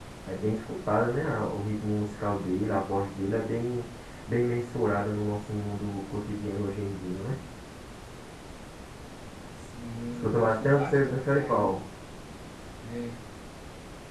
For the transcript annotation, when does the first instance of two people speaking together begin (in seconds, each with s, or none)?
10.2 s